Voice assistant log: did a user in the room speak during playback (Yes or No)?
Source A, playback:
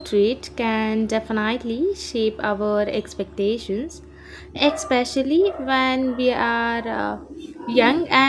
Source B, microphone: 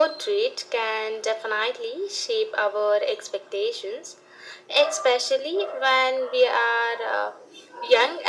No